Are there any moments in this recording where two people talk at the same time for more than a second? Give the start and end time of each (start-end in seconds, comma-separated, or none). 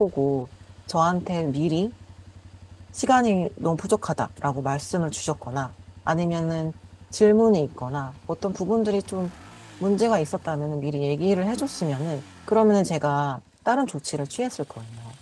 none